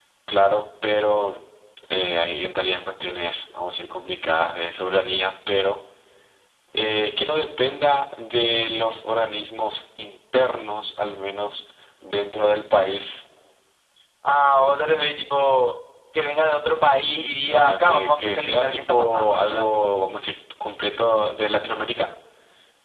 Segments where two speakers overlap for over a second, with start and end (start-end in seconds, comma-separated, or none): 17.5-19.7